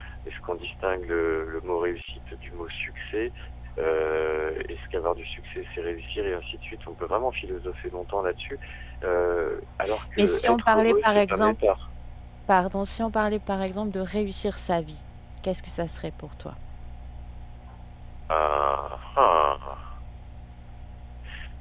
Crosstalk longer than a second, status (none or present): present